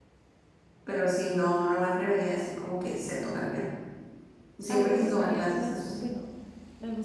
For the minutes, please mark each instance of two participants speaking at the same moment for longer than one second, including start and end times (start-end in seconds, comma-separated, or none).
4.7-6.0